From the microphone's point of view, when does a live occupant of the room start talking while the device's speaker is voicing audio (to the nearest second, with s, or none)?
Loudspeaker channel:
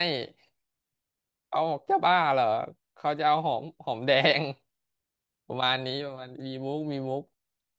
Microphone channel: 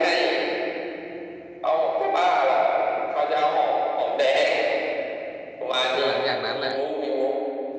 6 s